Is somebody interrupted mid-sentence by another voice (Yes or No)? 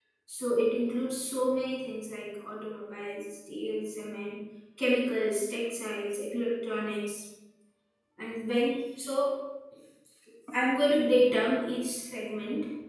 No